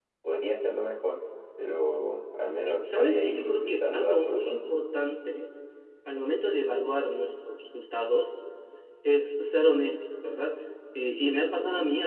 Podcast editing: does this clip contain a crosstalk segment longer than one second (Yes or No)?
Yes